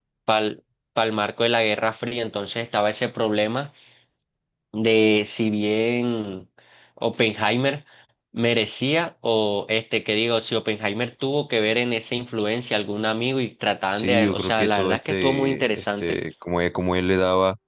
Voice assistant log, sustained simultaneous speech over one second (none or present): present